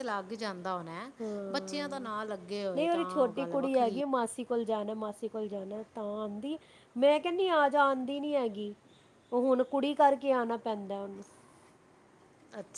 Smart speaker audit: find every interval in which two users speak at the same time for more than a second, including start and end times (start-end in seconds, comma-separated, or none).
2.8-4.0